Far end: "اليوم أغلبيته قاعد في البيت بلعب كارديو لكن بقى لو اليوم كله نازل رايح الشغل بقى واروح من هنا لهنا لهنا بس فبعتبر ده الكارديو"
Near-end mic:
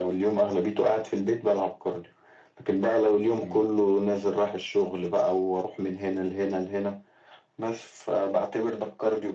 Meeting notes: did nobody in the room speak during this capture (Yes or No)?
No